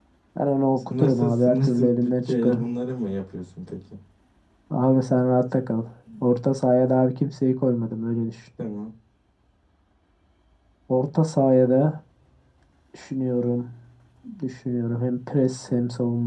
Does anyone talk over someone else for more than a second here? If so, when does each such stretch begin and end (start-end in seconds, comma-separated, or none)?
0.8-2.7